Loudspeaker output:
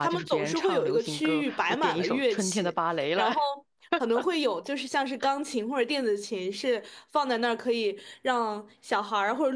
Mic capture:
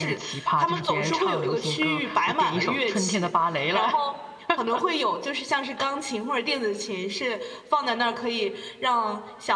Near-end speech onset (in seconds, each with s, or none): none